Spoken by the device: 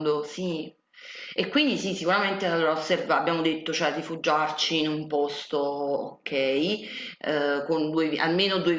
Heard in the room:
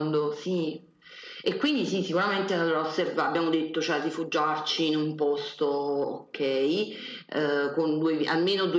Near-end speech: none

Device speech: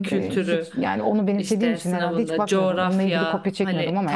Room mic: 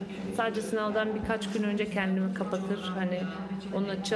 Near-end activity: present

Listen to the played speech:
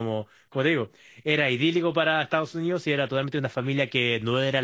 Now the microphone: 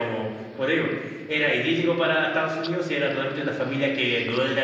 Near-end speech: none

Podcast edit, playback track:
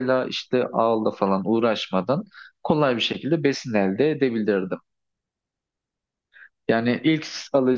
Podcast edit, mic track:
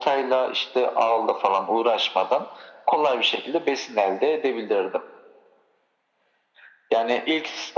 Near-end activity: none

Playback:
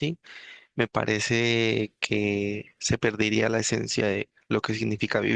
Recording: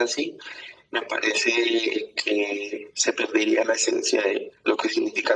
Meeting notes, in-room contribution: none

